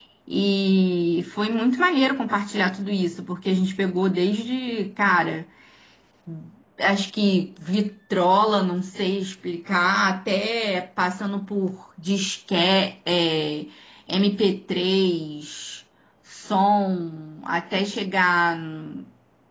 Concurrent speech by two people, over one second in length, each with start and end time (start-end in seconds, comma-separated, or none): none